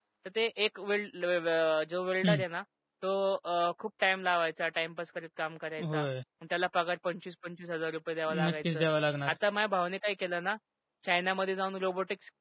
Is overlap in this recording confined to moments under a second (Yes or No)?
Yes